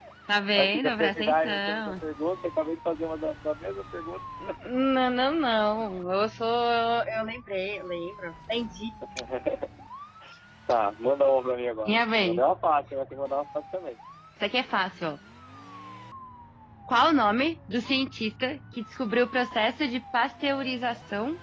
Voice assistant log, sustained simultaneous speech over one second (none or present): present